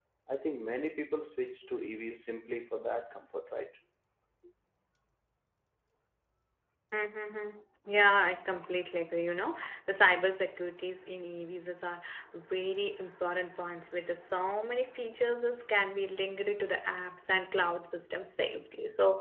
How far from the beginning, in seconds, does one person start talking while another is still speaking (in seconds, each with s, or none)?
none